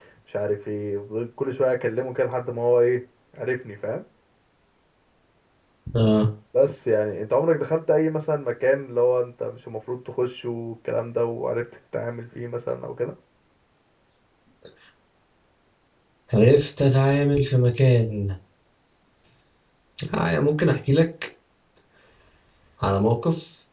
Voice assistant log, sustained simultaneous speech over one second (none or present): none